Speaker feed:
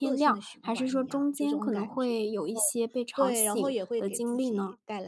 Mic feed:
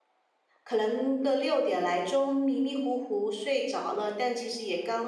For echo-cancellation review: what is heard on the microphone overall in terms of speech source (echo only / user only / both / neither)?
user only